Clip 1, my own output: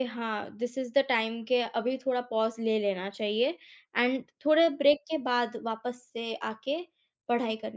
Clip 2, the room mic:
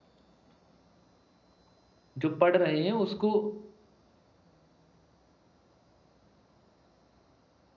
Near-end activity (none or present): present